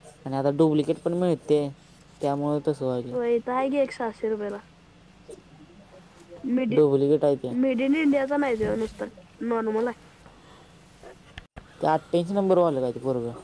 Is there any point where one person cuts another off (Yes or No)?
No